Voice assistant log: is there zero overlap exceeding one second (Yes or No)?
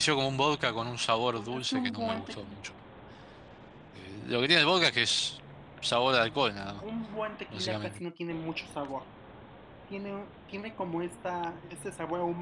No